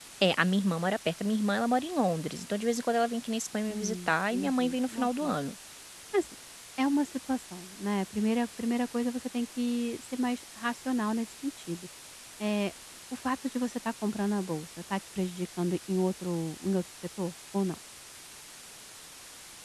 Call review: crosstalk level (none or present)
present